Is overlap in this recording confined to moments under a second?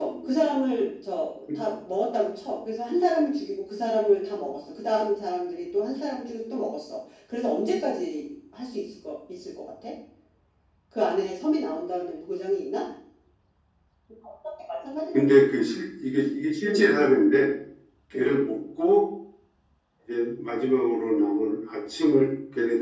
Yes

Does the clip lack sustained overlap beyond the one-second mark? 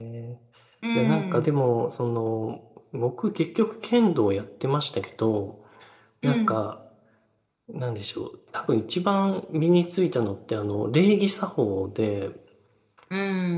Yes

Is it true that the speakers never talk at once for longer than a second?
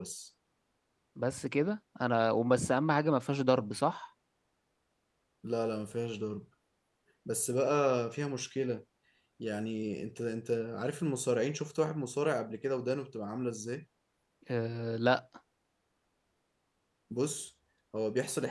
Yes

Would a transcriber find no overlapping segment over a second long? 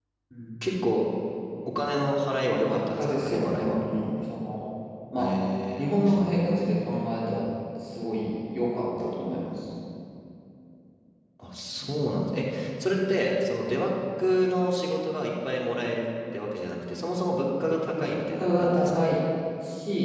No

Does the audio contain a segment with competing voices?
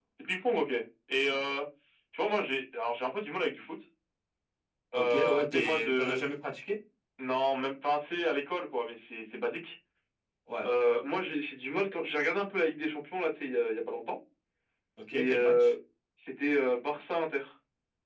Yes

